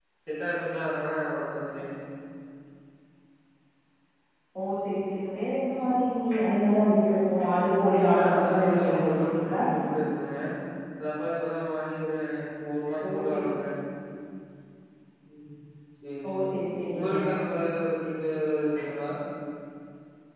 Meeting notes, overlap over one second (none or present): present